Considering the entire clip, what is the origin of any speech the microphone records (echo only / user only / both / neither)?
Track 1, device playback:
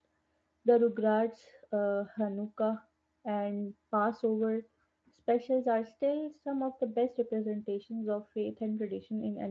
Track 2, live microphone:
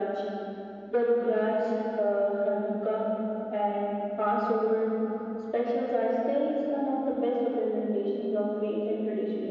echo only